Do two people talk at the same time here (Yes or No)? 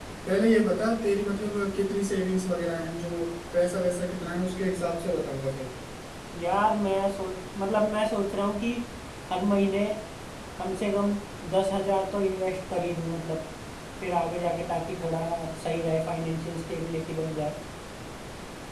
No